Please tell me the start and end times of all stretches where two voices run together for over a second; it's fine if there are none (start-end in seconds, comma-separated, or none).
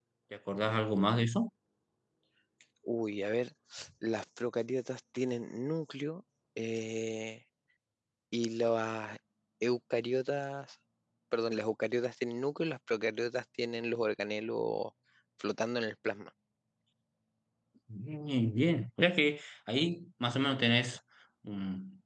none